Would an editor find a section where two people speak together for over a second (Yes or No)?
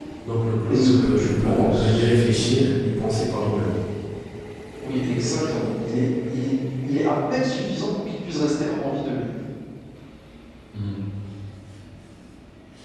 Yes